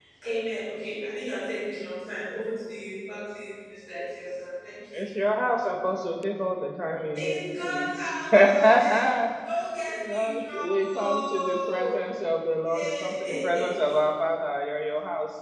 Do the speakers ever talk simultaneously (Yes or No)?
Yes